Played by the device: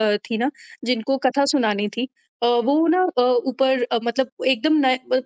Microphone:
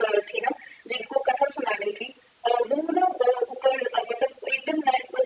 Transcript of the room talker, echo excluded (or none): none